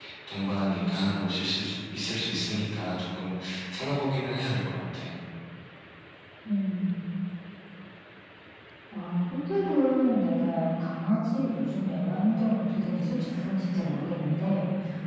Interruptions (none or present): none